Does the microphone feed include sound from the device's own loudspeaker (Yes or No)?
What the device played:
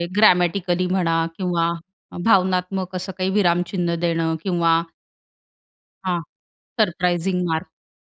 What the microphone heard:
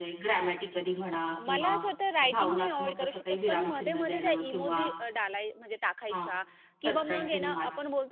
Yes